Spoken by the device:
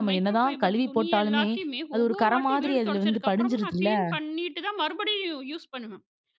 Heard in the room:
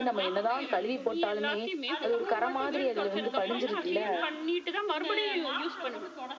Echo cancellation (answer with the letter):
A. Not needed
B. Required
B